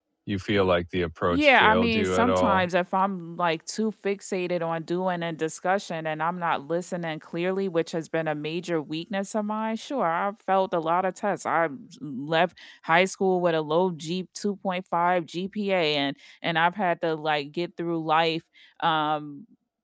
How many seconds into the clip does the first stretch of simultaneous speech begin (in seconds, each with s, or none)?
1.3 s